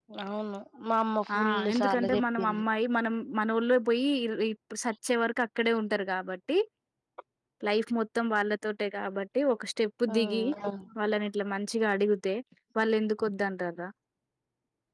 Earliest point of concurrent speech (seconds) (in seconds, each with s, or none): 1.4 s